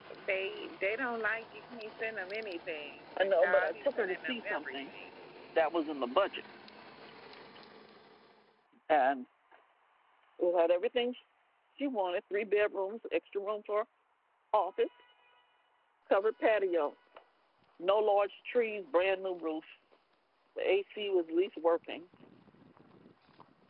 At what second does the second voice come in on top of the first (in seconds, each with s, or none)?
3.2 s